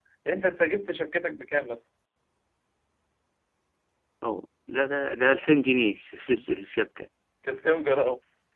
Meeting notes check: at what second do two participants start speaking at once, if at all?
none

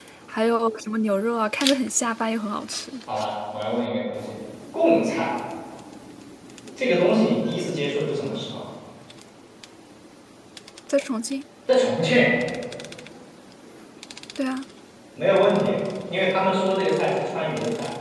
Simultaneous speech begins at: none

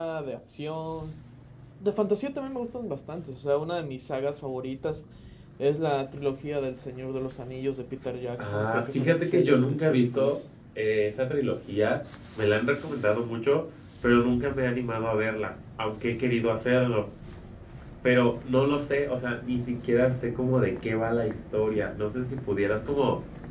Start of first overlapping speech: 8.4 s

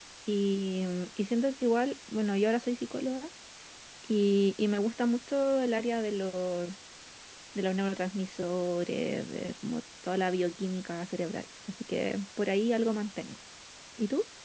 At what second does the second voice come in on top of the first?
none

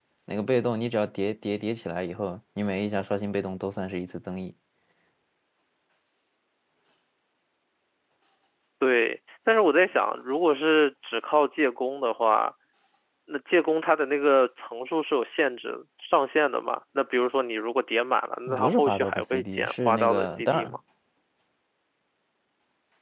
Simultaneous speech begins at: 18.5 s

